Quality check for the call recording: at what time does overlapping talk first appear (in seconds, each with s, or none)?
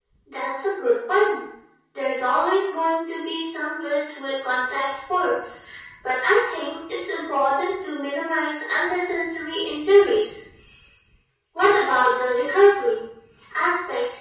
none